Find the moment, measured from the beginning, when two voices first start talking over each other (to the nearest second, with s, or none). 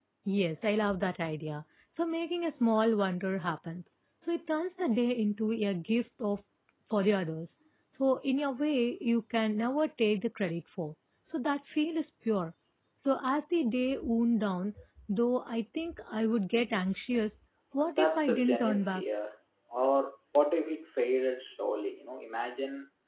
18 s